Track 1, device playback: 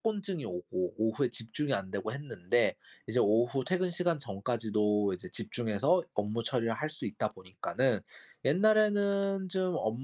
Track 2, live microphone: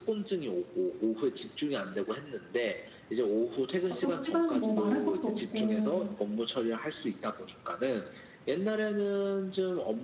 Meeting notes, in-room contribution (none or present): present